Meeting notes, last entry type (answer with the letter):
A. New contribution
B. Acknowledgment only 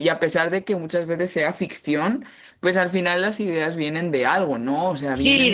A